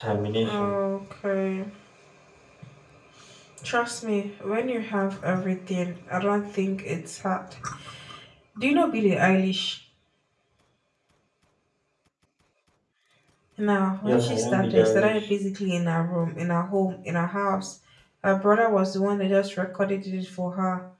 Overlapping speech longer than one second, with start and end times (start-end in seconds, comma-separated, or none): 14.0-15.2